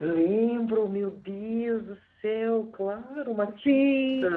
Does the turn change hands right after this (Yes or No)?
Yes